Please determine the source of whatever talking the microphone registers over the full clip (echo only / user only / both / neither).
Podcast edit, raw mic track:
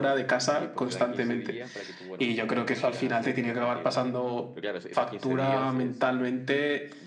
both